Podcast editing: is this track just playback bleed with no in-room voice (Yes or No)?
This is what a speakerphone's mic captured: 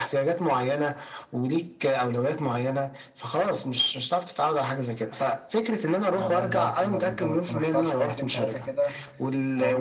No